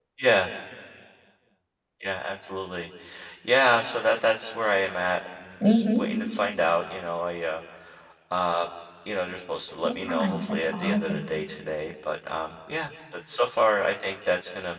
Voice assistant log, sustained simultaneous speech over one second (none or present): present